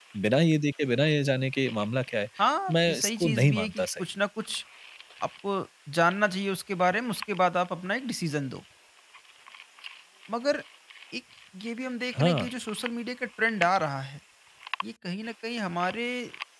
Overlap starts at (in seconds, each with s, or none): 2.7 s